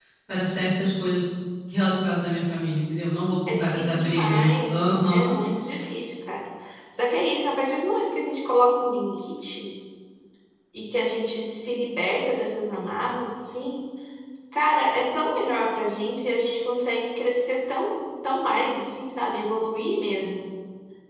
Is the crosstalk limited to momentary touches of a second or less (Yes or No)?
No